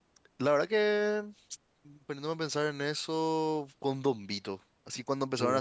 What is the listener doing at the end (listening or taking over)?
listening